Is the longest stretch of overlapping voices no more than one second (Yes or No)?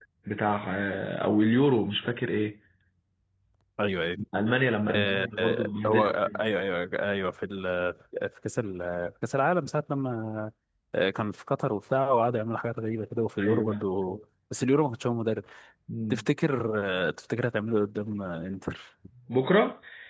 No